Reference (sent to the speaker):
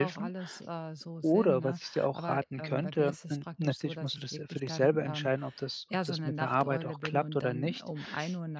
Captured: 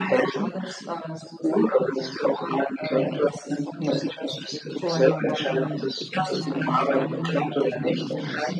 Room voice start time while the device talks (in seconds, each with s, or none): 4.8 s